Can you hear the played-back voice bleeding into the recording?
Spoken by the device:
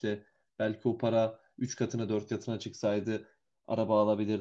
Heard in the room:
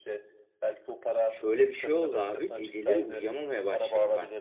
Yes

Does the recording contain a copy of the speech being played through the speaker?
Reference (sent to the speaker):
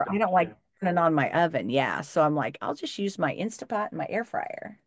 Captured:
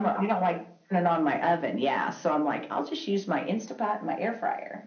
Yes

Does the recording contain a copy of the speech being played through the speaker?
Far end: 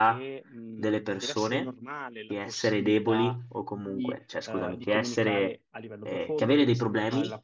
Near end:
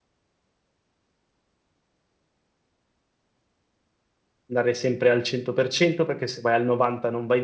No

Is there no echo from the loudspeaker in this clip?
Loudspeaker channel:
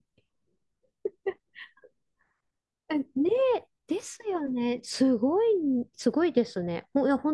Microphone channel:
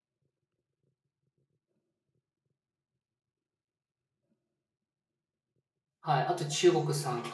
Yes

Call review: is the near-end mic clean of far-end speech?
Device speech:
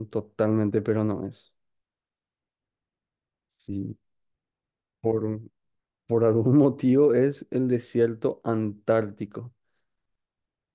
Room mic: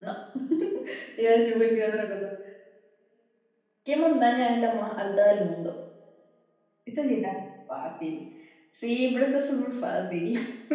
Yes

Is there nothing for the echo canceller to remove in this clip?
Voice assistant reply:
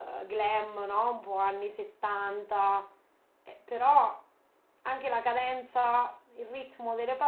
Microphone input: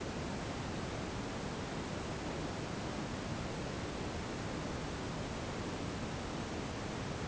Yes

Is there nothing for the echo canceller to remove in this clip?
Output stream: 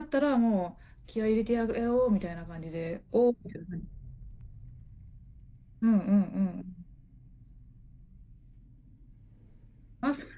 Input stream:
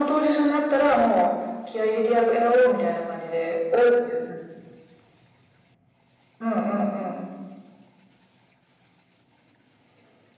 No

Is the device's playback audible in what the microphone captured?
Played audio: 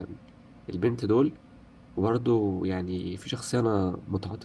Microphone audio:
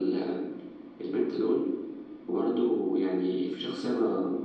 Yes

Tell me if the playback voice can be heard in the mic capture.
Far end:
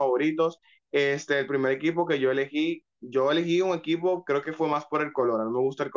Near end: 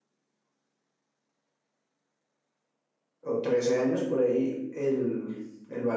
No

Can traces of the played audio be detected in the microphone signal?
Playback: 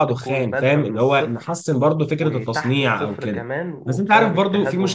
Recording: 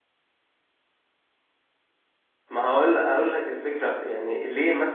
No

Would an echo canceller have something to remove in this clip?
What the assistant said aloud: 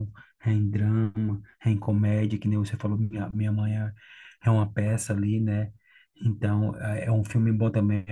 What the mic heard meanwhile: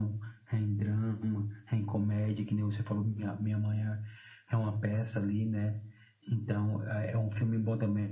Yes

